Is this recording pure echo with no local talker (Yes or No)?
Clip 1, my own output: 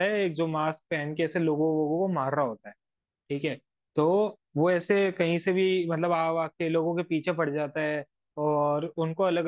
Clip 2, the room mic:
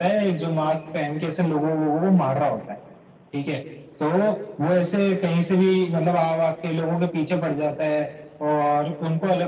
Yes